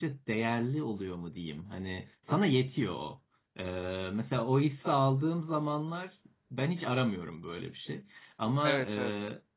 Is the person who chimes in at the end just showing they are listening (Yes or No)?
Yes